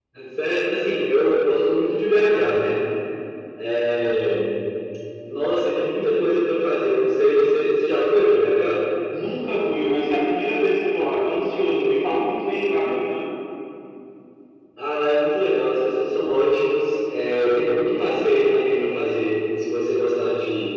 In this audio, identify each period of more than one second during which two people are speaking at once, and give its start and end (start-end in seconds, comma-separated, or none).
none